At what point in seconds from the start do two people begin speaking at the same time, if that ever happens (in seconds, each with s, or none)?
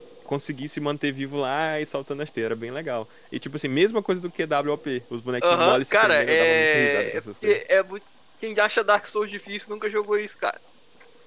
5.4 s